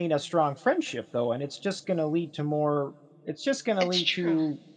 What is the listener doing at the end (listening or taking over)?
listening